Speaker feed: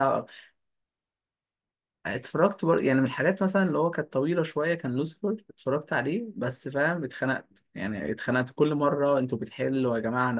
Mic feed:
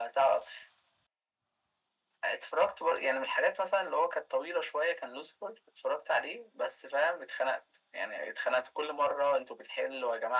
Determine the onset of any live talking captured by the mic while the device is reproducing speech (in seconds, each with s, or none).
none